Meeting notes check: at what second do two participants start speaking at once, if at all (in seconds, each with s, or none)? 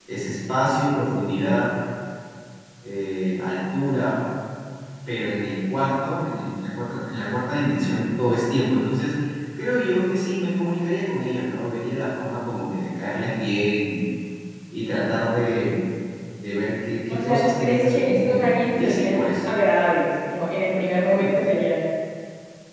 17.1 s